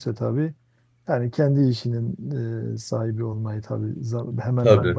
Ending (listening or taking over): listening